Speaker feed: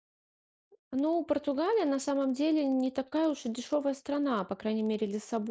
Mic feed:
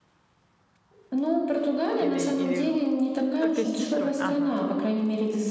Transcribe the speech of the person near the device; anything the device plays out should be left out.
э, или, или только с сестрой? Ага.

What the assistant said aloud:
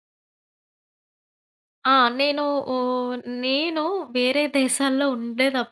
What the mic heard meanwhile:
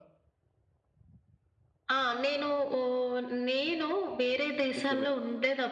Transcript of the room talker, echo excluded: నిజమే.

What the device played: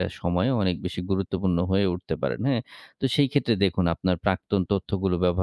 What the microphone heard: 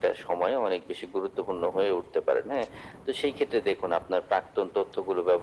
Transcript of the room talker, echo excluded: none

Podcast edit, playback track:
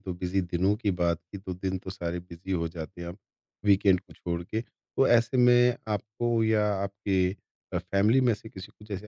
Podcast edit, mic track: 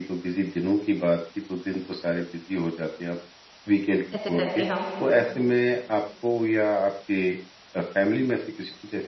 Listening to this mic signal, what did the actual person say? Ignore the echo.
ऐसे करके हम

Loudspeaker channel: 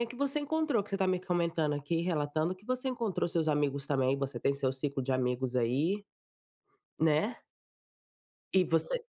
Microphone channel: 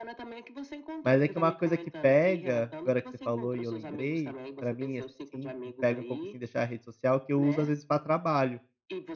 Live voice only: Mas é que uma coisa que pega, agora que você falou e eu lembrei, pra mim, assim, pega um pouco, assim, deixar a rede social, que eu uso às vezes pra trabalho.

